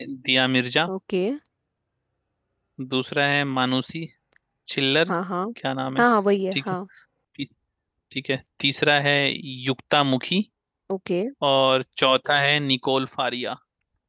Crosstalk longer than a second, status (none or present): none